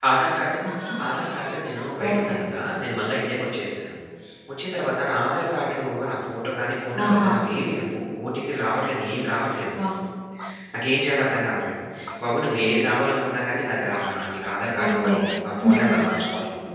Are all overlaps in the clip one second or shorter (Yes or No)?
Yes